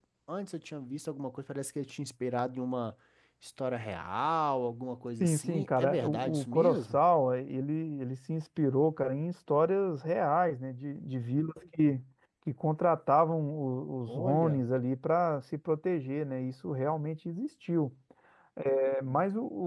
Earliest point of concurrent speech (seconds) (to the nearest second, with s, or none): 5 s